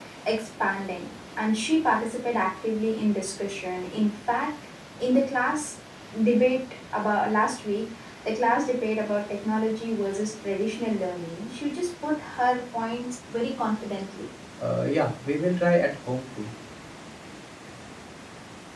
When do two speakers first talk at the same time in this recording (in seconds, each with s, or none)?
none